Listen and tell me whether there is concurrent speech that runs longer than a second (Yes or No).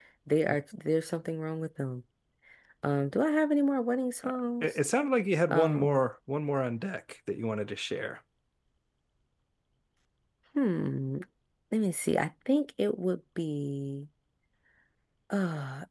No